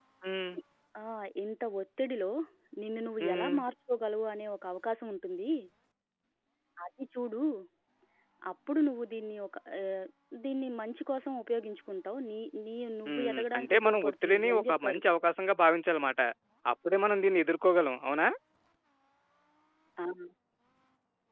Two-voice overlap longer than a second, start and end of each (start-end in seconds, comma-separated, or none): 13.1-15.0